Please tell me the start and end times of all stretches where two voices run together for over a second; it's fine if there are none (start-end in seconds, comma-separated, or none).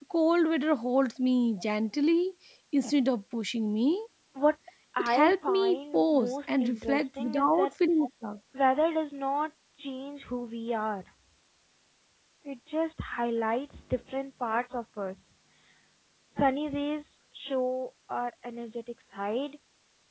5.0-7.7